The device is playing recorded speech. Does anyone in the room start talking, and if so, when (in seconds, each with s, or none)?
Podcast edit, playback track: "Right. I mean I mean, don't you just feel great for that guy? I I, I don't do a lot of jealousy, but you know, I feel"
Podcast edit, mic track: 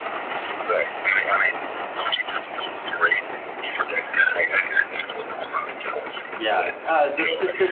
6.3 s